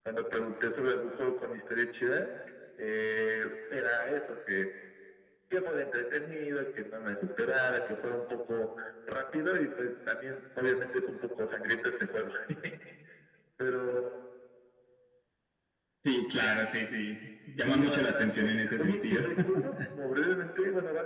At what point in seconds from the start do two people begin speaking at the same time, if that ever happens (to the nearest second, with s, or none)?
18 s